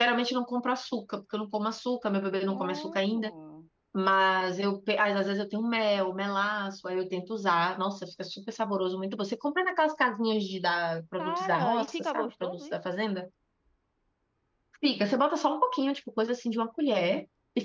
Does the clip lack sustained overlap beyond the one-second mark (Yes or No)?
No